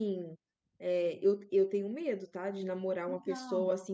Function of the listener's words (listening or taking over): listening